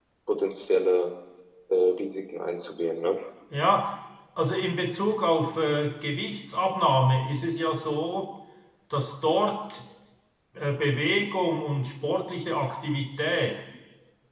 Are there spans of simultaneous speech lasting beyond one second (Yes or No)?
No